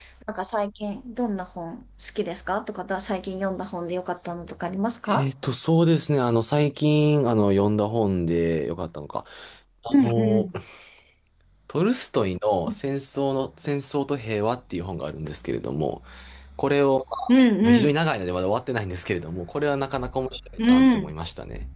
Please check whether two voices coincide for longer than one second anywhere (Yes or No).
No